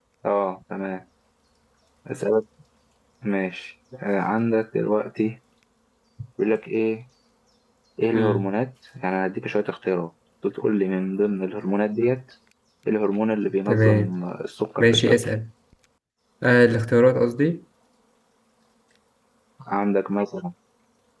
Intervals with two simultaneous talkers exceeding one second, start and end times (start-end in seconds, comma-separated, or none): none